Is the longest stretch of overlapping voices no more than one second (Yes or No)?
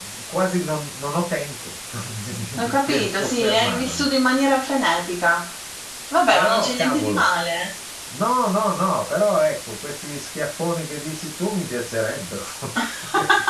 No